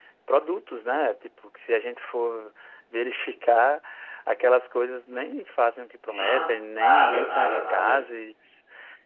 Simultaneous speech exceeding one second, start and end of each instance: 6.1-8.0

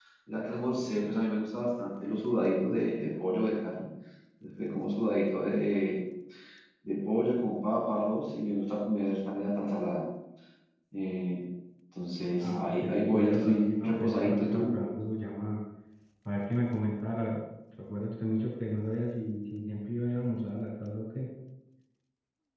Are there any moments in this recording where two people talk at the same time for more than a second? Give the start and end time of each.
12.4-14.7

